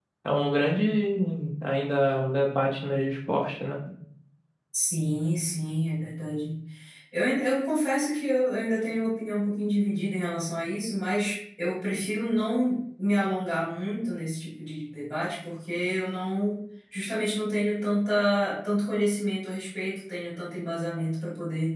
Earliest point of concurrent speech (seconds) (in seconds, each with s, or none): none